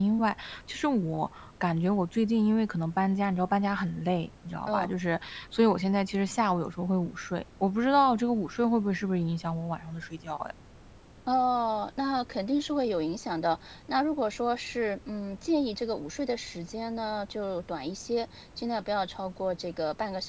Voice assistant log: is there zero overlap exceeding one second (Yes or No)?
Yes